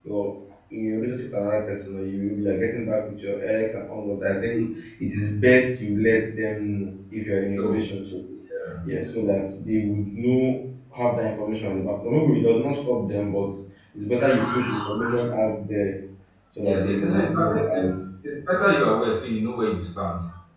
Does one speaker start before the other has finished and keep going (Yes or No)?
Yes